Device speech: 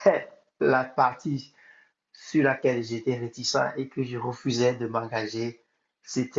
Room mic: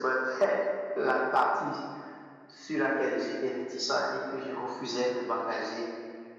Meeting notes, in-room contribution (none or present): none